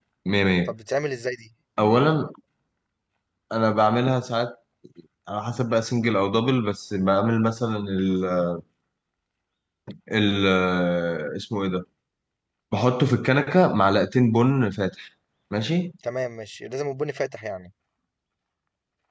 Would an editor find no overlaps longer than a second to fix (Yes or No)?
Yes